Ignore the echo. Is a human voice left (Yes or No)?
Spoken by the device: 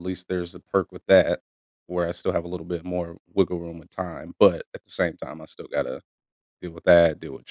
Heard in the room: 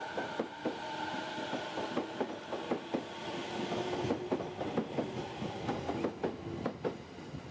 No